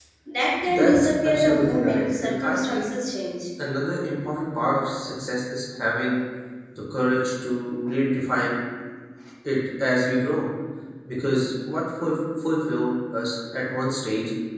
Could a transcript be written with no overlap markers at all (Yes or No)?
No